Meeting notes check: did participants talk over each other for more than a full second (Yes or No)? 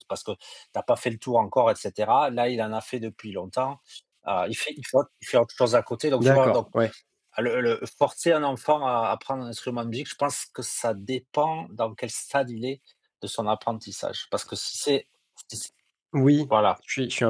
No